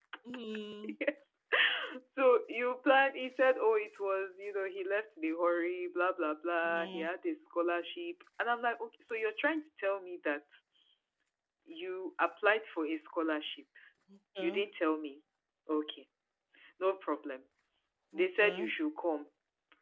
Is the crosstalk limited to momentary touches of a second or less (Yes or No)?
Yes